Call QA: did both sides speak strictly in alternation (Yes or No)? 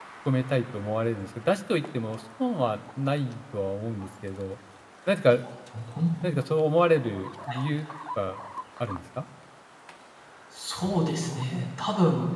Yes